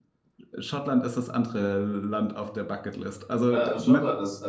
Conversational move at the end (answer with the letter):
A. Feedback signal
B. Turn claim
B